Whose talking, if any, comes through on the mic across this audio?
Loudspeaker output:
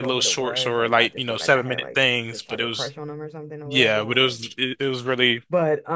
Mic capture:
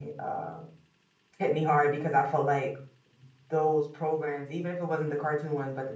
user only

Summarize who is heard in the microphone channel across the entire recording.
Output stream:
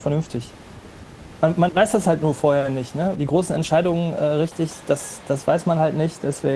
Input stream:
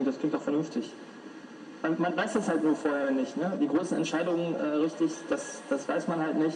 echo only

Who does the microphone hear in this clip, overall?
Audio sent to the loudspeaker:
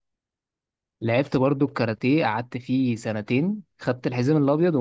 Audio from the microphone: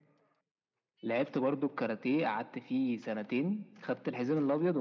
echo only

